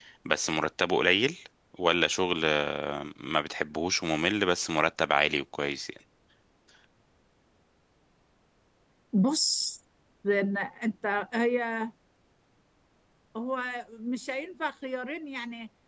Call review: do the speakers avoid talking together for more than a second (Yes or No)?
Yes